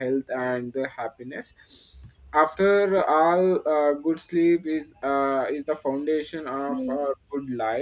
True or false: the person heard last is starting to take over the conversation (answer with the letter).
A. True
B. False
B